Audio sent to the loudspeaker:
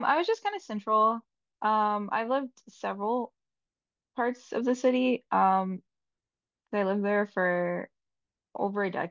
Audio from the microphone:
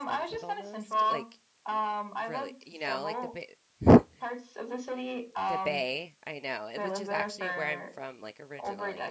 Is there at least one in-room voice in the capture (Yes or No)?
Yes